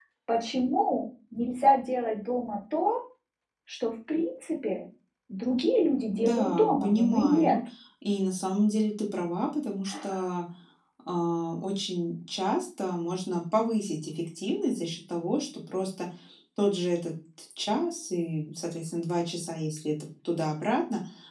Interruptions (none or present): present